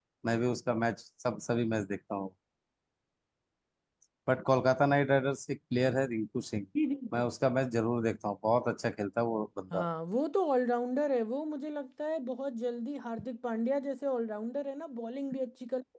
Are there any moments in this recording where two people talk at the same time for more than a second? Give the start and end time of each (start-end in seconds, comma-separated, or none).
none